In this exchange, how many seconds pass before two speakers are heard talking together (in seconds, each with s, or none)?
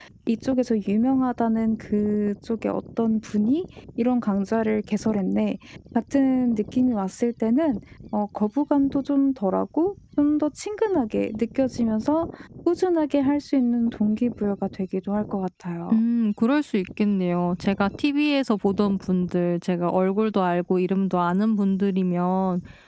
none